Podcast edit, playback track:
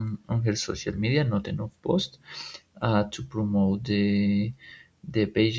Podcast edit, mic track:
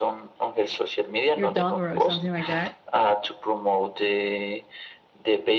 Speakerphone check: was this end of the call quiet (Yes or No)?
No